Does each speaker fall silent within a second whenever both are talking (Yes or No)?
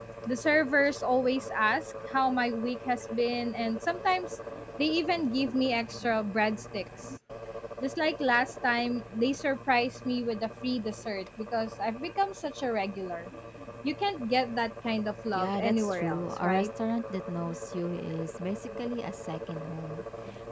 No